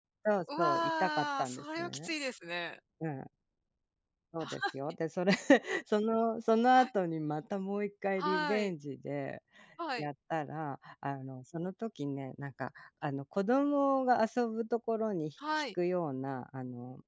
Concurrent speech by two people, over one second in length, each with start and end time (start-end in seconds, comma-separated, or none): 0.6-1.9